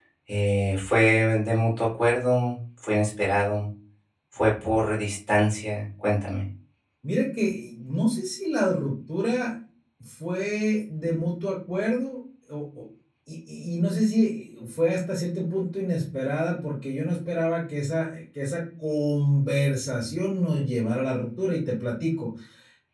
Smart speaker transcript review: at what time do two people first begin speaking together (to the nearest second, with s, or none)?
none